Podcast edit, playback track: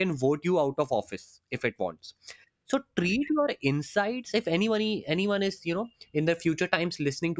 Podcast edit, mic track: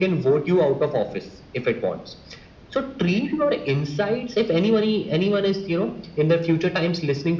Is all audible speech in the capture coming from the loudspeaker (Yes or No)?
Yes